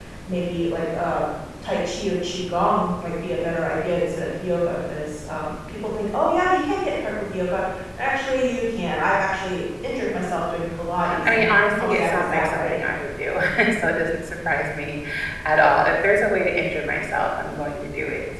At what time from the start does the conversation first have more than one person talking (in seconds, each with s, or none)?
11.0 s